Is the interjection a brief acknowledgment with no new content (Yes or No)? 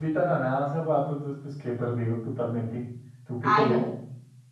No